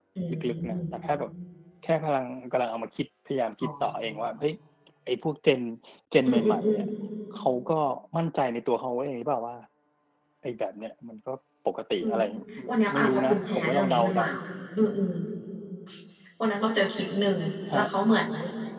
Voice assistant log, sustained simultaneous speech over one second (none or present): present